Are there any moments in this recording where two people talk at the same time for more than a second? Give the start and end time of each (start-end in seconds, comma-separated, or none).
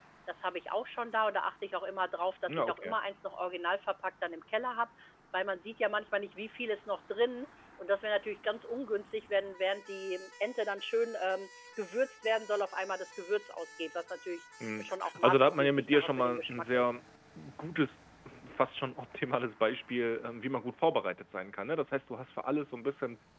15.2-17.0